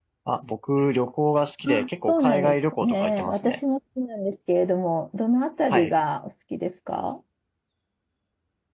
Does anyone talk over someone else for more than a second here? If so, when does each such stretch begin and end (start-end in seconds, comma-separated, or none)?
1.7-3.6